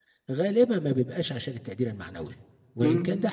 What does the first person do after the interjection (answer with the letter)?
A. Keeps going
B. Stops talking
A